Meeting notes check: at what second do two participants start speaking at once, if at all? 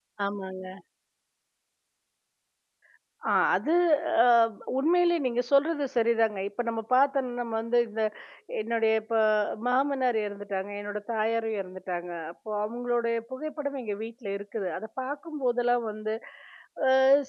none

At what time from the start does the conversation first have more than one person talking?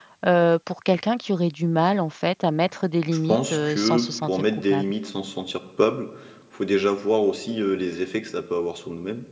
3.3 s

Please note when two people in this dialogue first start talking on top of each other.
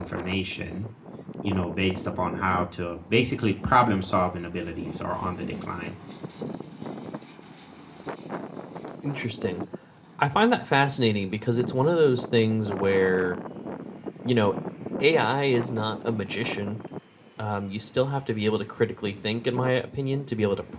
none

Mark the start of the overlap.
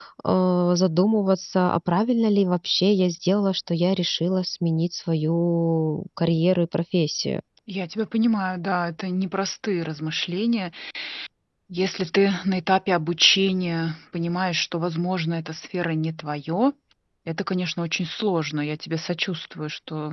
none

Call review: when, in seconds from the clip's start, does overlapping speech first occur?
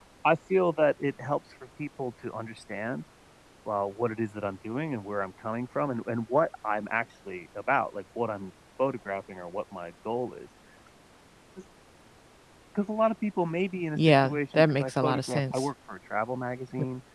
14.0 s

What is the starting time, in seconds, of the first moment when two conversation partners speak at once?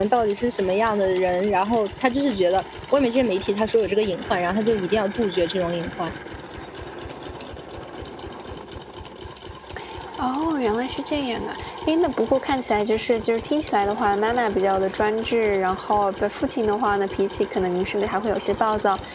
none

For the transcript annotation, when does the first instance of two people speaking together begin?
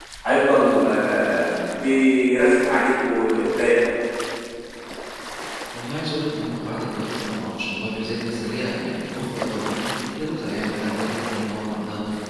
none

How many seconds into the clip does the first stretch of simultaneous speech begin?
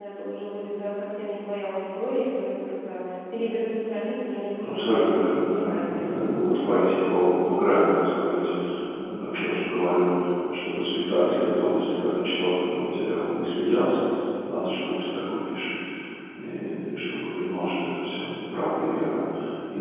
4.6 s

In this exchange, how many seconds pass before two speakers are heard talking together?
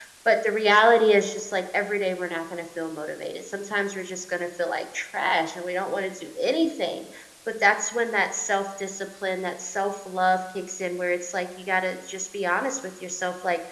none

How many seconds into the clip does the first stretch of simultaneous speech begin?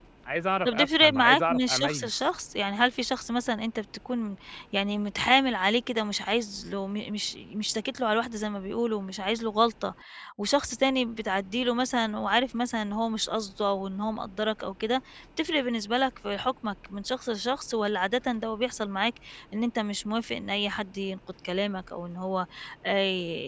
0.7 s

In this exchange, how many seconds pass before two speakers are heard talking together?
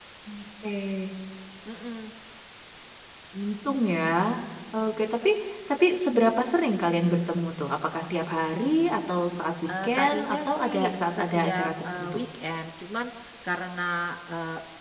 9.7 s

